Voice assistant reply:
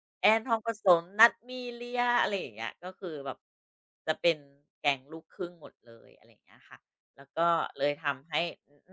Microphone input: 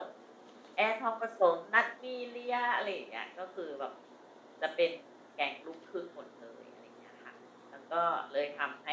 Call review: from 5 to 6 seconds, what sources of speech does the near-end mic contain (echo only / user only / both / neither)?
echo only